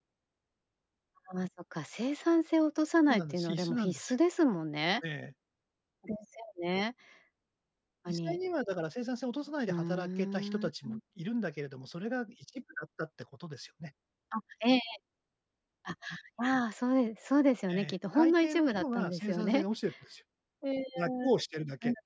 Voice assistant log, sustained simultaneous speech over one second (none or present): present